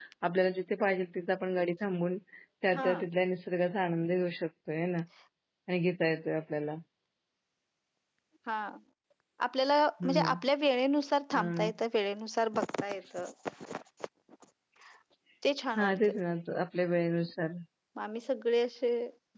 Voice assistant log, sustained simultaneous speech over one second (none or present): none